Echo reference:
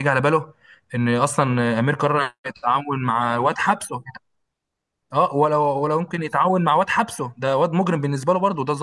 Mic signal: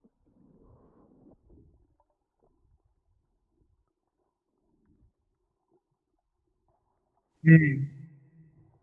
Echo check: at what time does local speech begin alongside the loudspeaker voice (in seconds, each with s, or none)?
7.4 s